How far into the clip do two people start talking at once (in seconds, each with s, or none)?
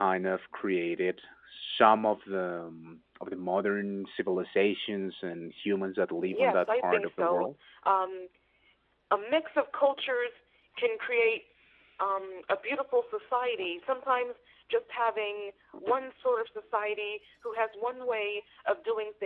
6.2 s